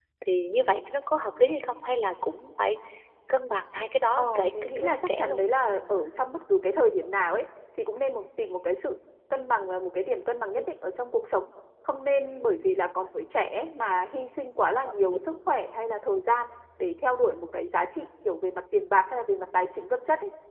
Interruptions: present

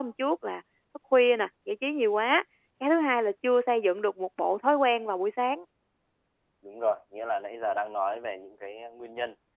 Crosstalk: none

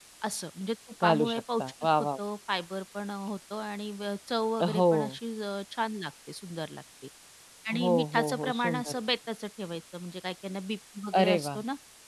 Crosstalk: present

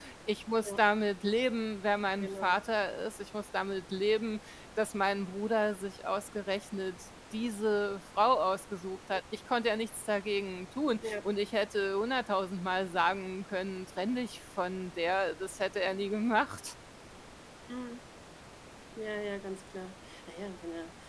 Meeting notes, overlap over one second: none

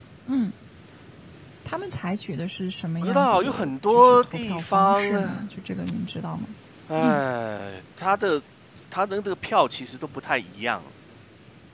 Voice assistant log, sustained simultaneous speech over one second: present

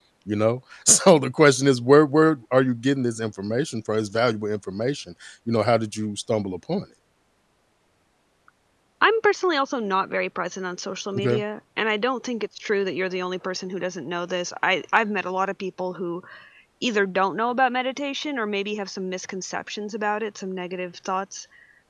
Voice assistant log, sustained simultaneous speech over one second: none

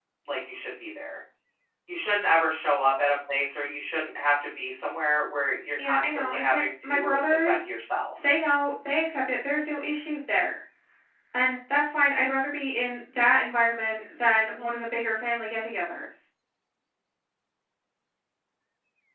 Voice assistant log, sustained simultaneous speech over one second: present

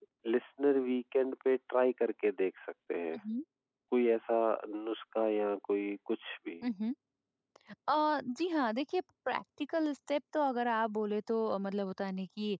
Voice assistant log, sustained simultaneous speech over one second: none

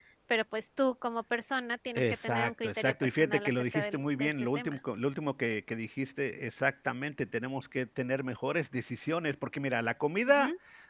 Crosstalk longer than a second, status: present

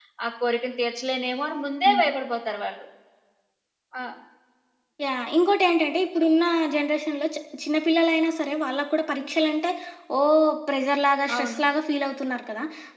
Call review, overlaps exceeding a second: none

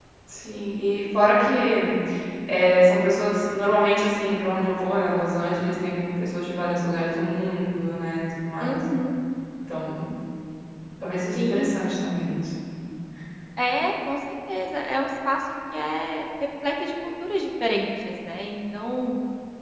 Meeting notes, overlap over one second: none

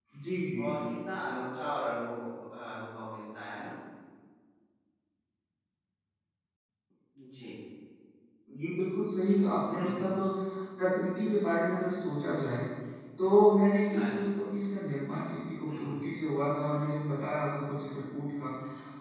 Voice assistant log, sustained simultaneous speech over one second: none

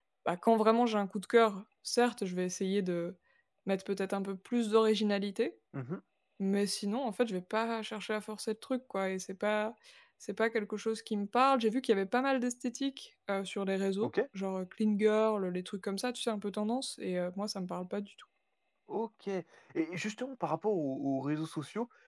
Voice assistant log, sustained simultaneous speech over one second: none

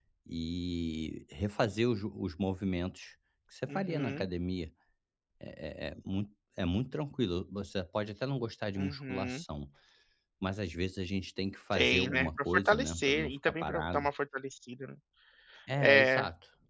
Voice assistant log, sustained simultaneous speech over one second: present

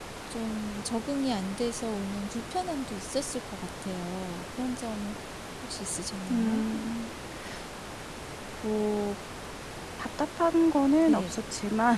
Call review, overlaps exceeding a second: none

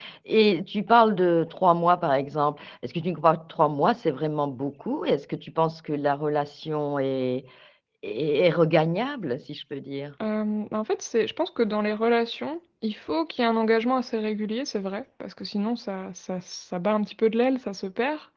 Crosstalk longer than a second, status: none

